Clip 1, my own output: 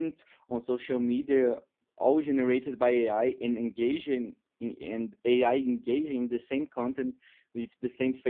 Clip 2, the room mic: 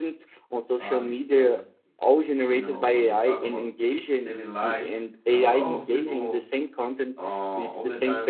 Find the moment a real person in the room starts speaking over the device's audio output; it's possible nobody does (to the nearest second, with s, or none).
1 s